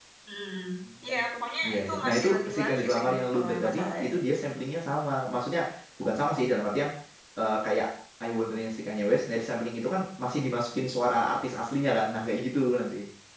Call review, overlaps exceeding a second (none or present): present